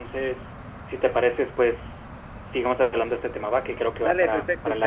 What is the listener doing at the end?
taking over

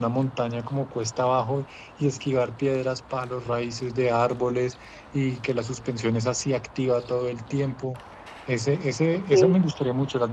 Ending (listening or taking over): listening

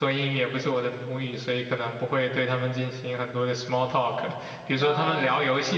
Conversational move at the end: listening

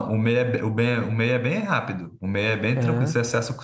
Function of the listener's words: listening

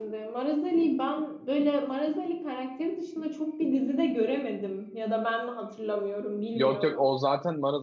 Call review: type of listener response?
taking over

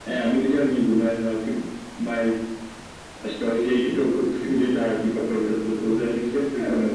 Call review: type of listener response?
taking over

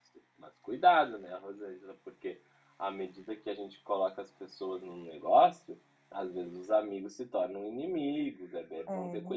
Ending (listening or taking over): taking over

